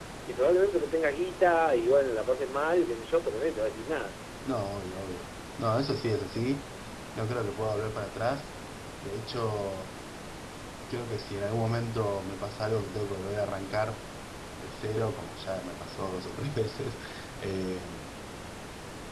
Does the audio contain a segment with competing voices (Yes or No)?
No